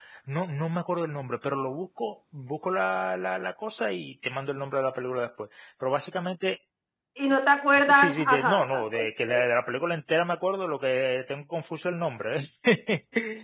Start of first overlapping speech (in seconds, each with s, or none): 7.9 s